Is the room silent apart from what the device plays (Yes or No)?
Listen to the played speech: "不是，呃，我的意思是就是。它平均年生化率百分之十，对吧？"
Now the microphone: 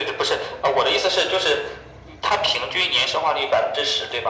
Yes